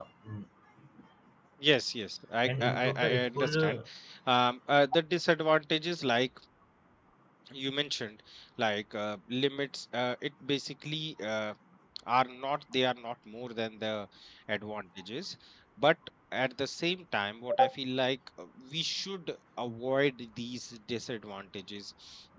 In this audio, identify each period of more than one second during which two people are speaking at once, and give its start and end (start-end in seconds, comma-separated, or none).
2.5-3.8